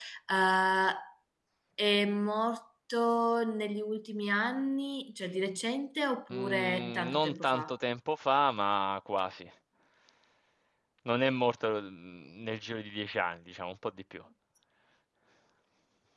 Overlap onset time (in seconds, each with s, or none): 6.3 s